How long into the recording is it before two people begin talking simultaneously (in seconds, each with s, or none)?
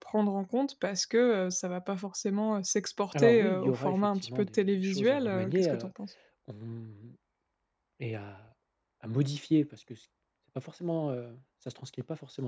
3.1 s